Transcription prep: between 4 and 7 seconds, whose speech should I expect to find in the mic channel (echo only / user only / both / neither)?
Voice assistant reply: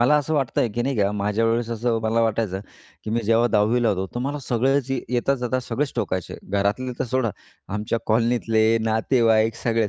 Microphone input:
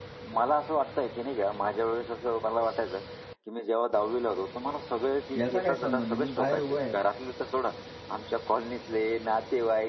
both